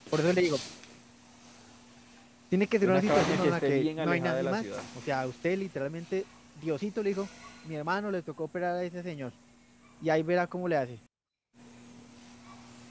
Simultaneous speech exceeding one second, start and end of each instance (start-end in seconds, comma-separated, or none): 2.9-4.6